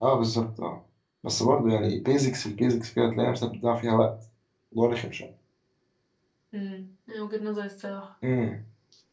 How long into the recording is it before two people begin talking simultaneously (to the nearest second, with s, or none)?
none